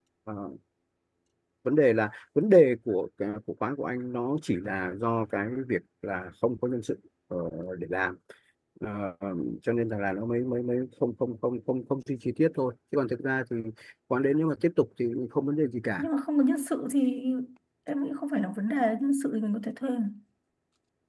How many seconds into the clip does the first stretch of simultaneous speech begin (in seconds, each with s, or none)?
none